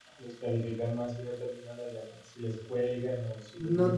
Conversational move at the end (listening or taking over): taking over